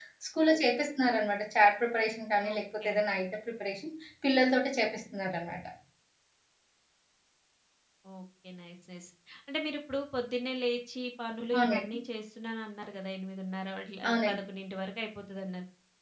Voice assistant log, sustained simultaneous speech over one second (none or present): none